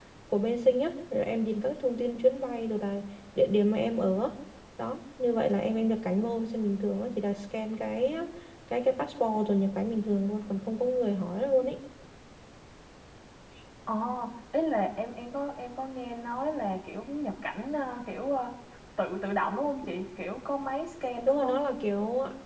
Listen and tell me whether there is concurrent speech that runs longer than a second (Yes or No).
No